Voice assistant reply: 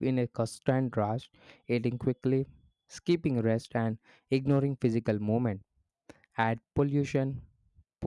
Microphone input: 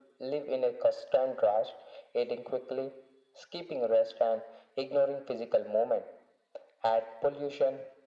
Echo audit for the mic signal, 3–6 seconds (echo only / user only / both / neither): echo only